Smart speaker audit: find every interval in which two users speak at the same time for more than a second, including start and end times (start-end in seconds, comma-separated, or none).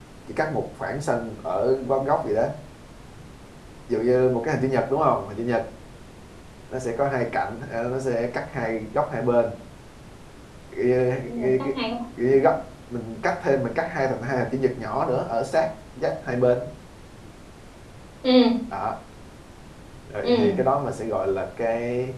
none